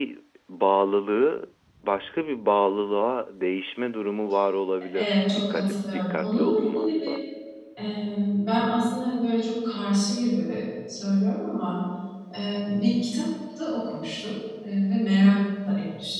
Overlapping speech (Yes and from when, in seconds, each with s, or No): Yes, from 4.9 s